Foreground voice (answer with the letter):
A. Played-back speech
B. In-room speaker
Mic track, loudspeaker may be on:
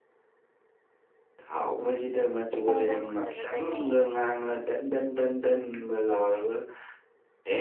A